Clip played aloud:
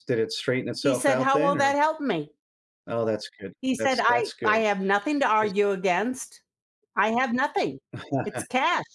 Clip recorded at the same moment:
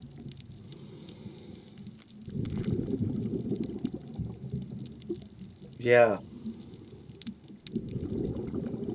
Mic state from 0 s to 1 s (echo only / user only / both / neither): neither